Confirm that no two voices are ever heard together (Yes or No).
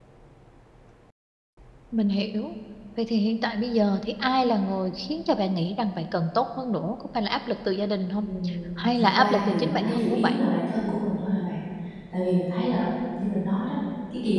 No